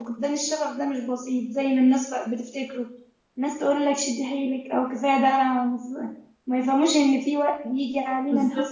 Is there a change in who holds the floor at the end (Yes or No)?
No